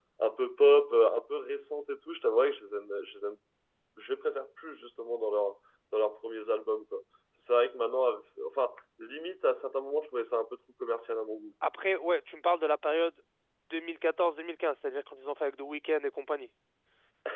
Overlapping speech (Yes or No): No